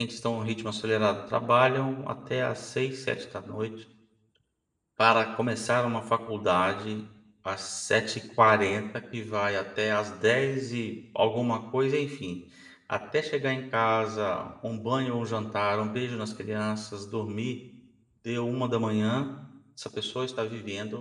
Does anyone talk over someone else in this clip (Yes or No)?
No